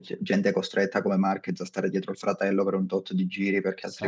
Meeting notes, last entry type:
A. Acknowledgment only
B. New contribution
A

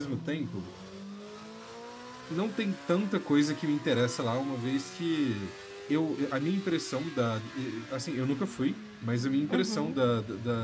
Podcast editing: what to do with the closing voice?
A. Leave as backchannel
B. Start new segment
A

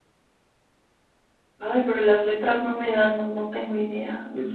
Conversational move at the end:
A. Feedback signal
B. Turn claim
B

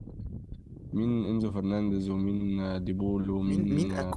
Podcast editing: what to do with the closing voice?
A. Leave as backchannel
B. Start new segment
B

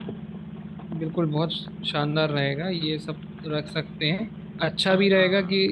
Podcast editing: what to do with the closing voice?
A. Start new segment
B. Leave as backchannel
B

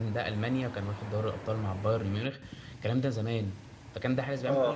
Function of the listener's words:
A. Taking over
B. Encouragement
B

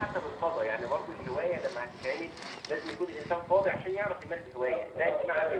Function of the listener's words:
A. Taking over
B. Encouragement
A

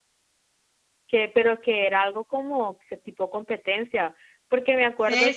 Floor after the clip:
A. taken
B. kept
A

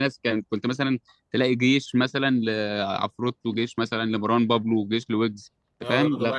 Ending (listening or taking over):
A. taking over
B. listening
A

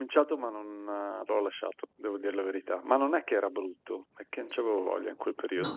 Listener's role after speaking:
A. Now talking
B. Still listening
A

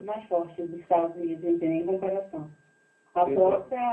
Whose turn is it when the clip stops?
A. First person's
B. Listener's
A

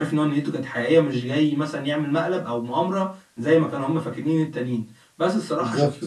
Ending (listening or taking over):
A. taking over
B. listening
B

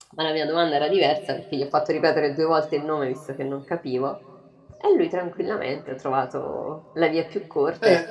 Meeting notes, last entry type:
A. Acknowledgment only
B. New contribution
B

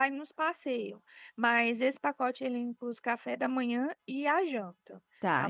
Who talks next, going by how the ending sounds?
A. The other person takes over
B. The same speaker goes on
A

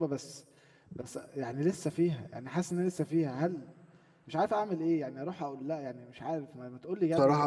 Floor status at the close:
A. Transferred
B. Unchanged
A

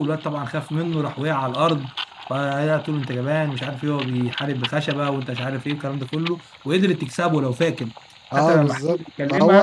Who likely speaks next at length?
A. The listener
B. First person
A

